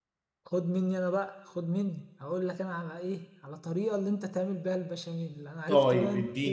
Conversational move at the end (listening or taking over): taking over